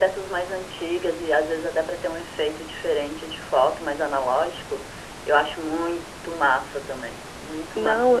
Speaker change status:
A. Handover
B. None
A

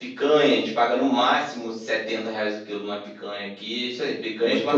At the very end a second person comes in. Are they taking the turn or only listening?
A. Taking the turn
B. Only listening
B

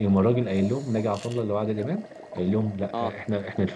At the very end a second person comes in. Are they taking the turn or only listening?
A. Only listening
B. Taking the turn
A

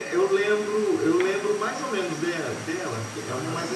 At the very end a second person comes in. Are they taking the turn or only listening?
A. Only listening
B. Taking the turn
B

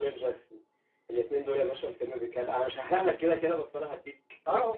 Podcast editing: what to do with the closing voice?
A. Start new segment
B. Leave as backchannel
A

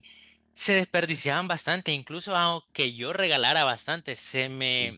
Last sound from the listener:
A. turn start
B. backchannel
B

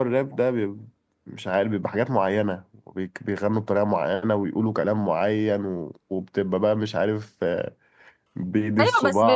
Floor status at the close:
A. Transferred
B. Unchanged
A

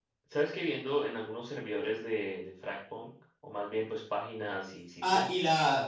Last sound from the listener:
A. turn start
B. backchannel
A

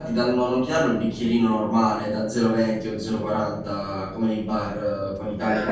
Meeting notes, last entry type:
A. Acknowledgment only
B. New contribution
A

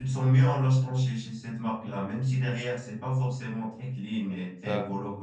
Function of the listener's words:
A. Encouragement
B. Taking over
A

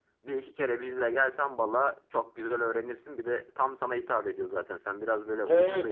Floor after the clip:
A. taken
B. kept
A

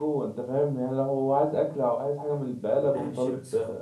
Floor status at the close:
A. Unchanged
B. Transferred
B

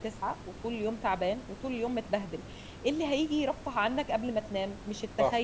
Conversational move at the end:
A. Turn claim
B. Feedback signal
B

